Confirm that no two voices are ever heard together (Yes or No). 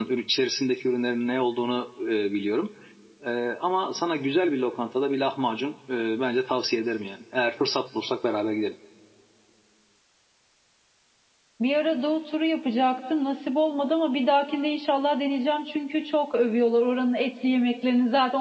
Yes